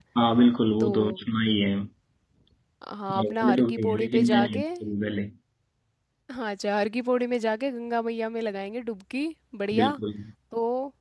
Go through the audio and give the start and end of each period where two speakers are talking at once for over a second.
3.2-4.6

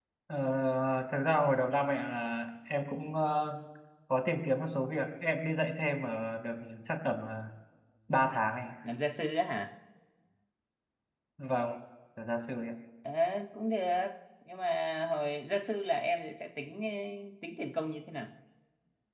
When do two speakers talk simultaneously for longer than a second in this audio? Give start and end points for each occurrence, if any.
none

